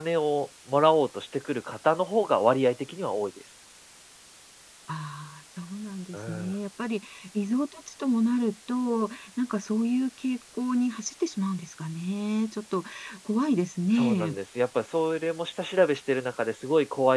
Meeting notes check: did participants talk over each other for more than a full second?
No

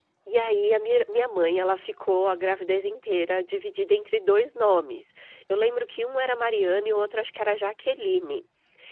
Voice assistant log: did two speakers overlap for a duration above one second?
No

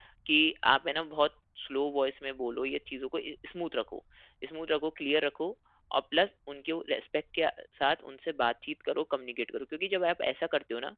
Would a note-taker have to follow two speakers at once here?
No

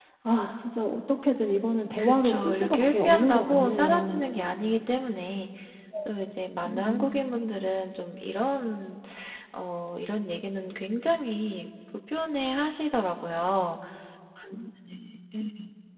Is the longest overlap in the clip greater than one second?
Yes, from 2.0 s

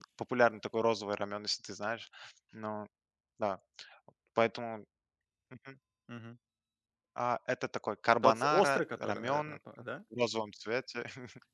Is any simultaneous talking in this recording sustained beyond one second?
Yes, from 8.2 s

